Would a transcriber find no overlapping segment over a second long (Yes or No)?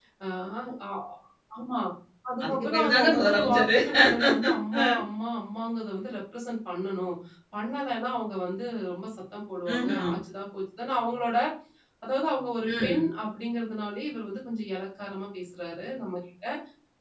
No